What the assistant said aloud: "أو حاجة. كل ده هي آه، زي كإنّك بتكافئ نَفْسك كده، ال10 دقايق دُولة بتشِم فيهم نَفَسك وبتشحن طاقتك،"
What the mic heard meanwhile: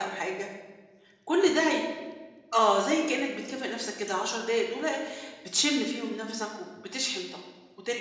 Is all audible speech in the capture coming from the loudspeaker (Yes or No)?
Yes